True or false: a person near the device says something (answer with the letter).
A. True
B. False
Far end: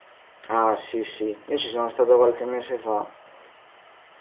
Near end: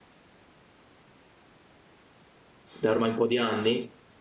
A